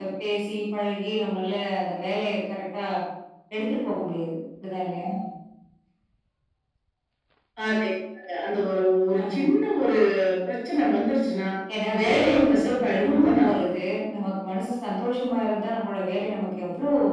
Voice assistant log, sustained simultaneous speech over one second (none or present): present